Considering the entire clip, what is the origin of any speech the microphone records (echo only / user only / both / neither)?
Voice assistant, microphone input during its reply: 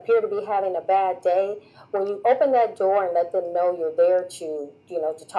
echo only